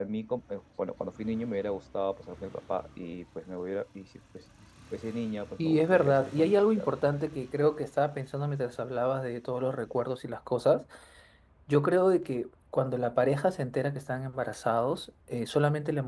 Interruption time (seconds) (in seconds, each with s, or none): 5.6 s